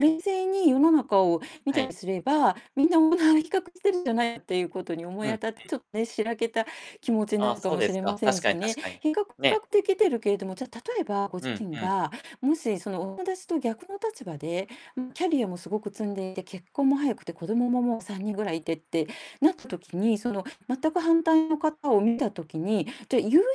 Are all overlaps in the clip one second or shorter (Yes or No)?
No